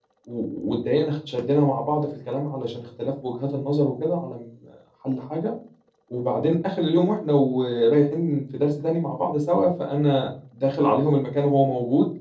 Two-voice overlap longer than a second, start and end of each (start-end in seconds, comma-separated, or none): none